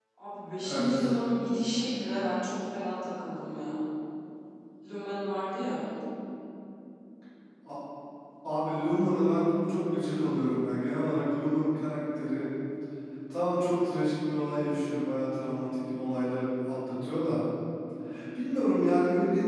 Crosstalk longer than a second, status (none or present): none